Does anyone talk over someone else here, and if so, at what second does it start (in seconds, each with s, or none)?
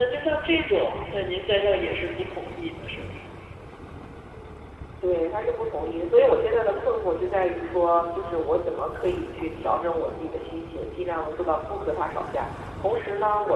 none